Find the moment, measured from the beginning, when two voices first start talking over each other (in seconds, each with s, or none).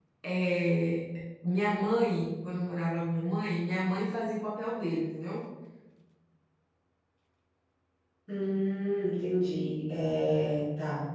none